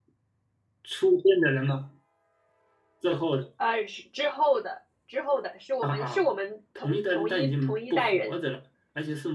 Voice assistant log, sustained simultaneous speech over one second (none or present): present